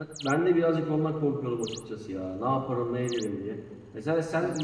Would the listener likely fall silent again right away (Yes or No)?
Yes